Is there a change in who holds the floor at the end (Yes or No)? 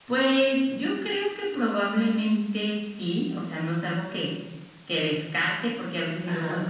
No